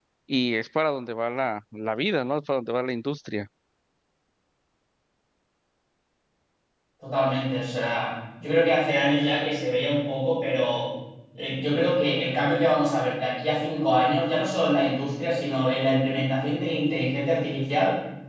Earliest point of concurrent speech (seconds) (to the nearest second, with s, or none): none